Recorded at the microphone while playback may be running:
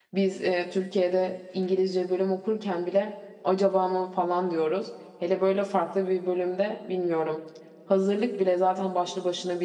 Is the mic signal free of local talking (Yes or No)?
No